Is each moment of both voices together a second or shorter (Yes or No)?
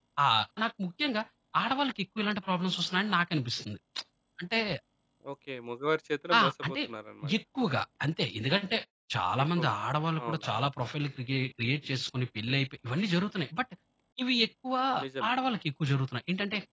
Yes